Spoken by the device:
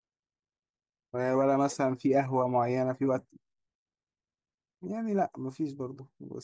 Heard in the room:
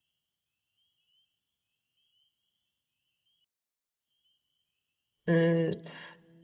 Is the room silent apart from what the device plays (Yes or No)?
No